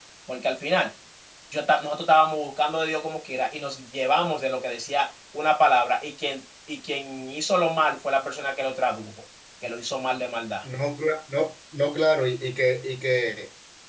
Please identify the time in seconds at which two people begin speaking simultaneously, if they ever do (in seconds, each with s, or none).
none